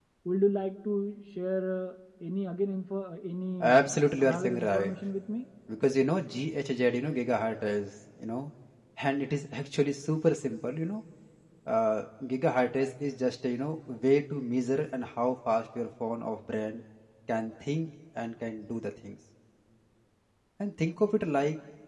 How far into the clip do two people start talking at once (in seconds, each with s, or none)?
3.6 s